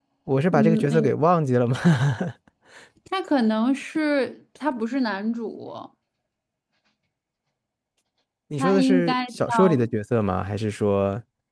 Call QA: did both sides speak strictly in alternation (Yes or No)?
No